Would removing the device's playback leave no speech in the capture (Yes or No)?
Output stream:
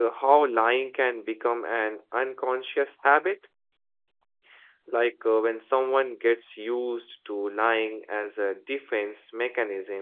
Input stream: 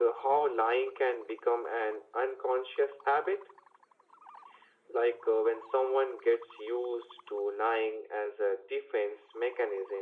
Yes